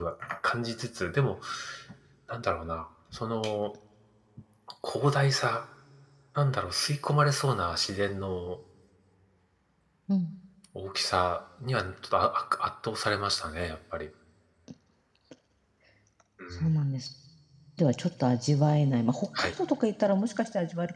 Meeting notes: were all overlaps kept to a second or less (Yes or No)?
Yes